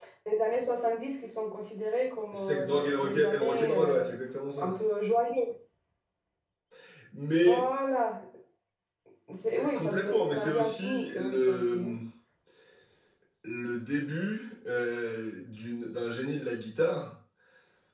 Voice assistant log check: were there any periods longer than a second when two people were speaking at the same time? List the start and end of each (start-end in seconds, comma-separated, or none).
2.3-4.1, 9.8-11.9